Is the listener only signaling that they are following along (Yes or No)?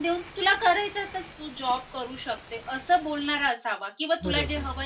Yes